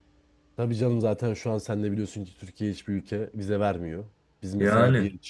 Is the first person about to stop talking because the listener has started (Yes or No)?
No